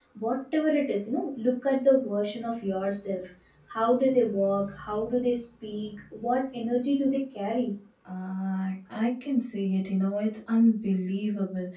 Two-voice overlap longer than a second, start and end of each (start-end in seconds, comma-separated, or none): none